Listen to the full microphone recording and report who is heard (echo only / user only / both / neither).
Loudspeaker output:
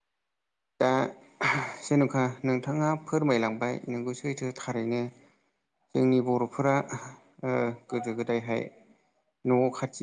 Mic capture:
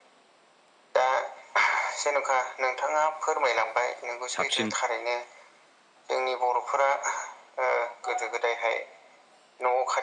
both